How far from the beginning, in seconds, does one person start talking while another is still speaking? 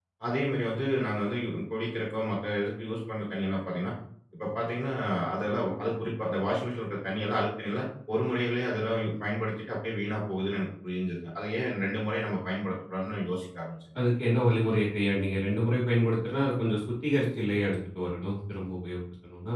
none

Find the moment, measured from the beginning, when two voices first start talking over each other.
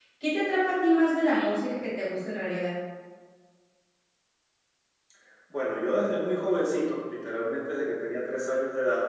none

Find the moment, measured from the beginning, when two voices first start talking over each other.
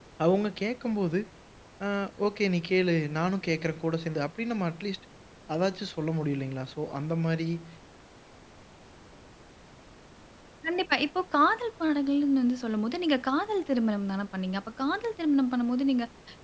none

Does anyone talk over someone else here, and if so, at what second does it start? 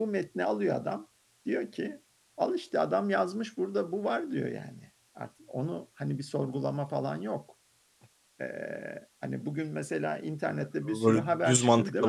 10 s

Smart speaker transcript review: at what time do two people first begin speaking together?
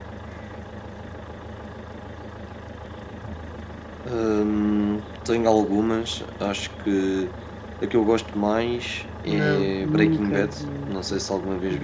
9 s

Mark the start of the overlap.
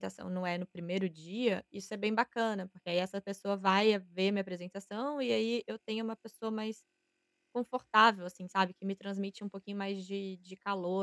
none

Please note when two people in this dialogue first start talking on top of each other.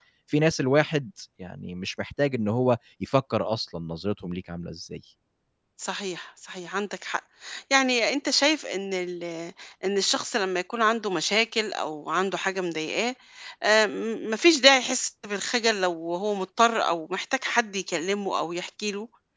none

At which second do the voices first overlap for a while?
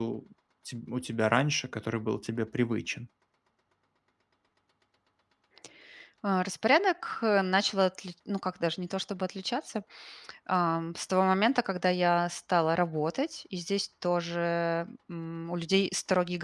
none

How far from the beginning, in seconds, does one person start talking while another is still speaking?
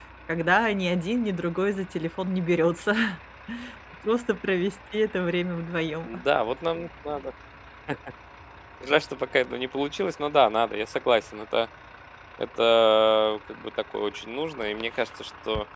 none

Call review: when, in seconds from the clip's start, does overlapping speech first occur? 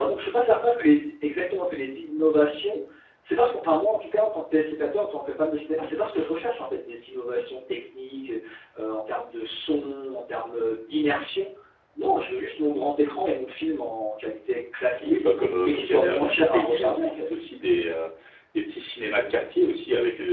16 s

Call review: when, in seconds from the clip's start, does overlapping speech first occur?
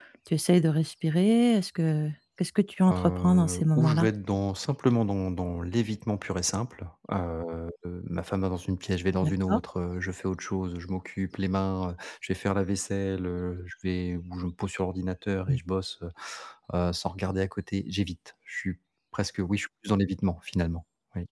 3 s

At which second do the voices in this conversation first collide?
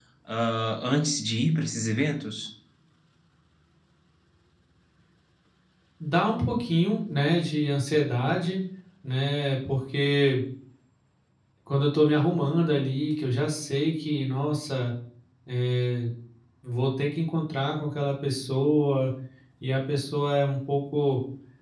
none

